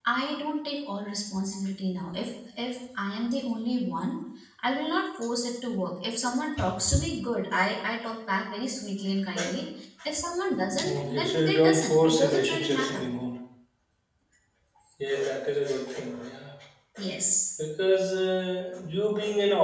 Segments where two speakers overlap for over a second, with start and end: 10.9-13.0

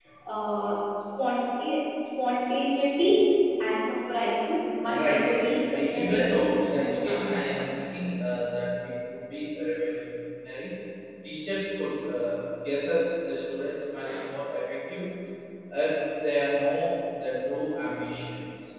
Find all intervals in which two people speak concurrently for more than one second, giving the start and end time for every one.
4.9-7.7

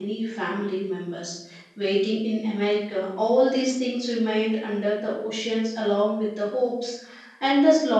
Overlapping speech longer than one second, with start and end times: none

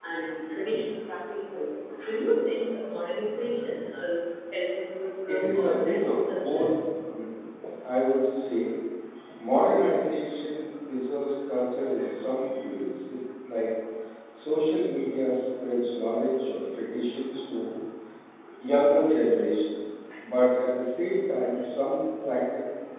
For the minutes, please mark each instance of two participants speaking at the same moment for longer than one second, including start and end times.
5.3-6.7

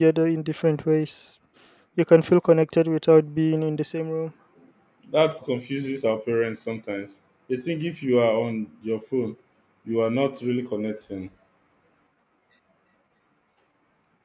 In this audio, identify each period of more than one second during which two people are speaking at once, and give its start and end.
none

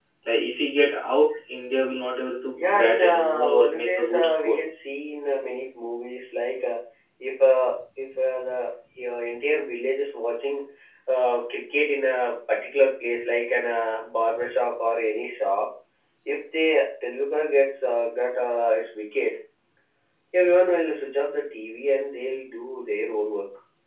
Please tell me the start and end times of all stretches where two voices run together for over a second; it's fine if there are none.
2.6-4.6

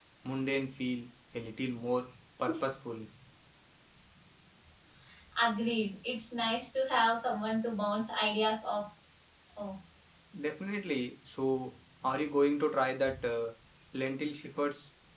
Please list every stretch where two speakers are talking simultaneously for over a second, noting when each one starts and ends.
none

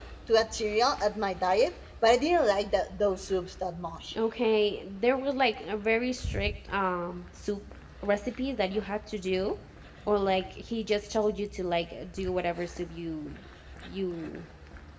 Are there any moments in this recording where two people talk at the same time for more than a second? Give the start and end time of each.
none

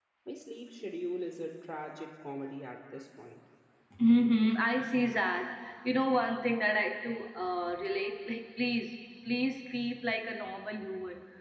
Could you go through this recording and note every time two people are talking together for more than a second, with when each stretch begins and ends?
none

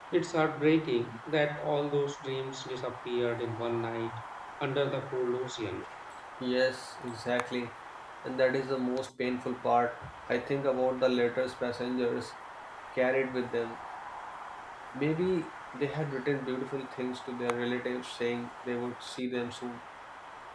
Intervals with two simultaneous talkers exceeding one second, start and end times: none

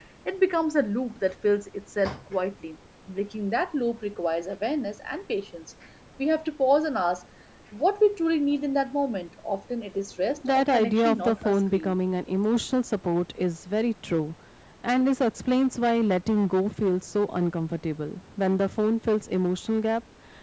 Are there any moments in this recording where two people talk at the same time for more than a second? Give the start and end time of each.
10.5-11.9

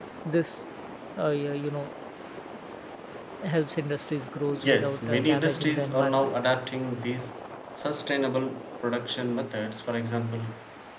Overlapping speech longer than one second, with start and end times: 4.5-6.3

